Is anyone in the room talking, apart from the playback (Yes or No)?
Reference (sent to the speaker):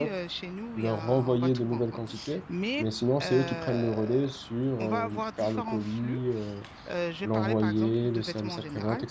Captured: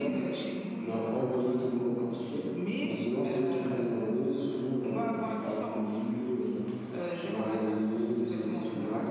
No